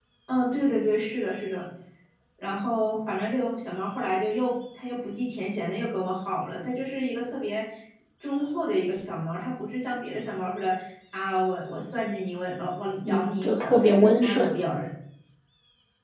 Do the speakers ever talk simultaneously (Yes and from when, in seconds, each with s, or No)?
Yes, from 13.0 s